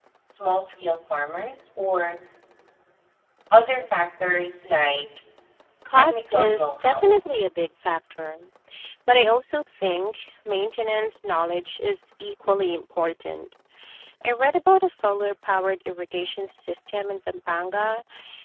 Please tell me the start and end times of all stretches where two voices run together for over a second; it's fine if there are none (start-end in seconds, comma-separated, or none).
5.9-7.2